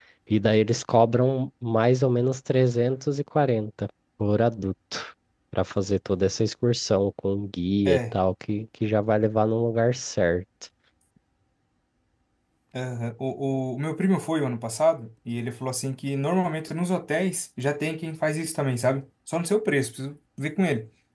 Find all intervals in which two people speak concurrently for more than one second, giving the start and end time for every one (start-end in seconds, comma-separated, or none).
none